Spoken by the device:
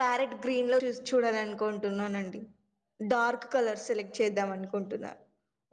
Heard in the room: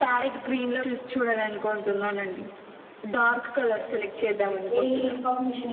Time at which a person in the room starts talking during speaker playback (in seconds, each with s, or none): 4.8 s